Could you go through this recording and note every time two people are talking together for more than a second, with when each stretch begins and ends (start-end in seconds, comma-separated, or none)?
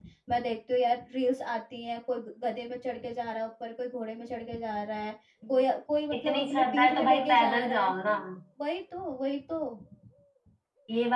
6.2-7.9